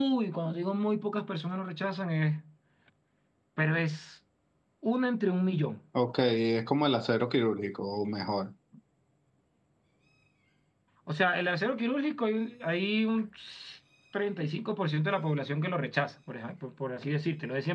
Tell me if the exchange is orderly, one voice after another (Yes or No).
Yes